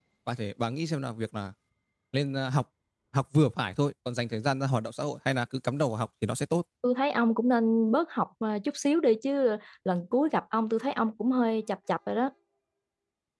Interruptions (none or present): none